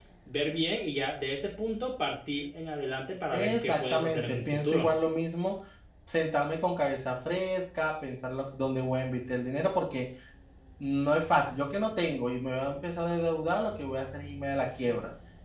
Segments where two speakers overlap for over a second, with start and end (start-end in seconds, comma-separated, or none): 3.3-4.9